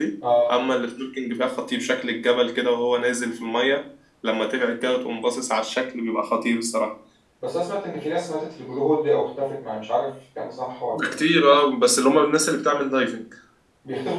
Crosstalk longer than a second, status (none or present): none